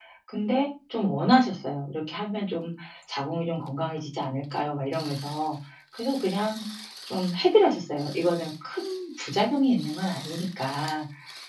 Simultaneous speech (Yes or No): No